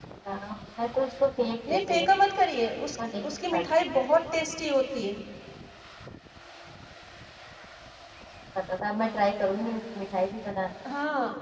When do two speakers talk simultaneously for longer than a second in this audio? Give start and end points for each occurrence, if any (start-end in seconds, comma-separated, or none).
none